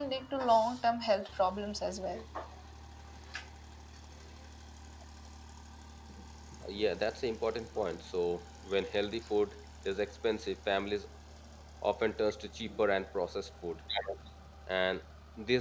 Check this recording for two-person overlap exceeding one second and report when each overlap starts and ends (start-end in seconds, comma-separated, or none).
none